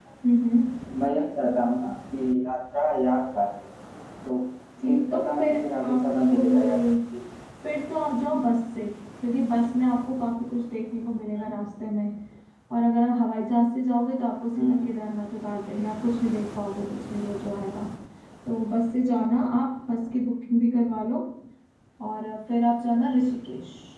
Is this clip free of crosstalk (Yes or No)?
No